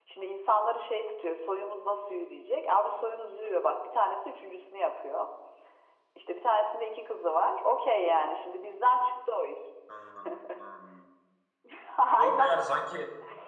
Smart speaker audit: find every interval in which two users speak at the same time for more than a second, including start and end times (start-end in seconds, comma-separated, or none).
none